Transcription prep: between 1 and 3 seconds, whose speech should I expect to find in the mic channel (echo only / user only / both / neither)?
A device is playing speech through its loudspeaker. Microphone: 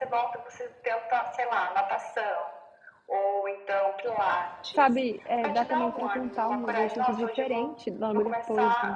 echo only